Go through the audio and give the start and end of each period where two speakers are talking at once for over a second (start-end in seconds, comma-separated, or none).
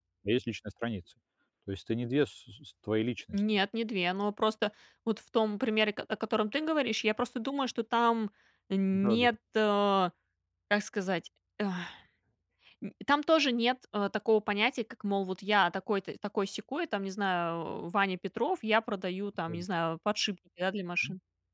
none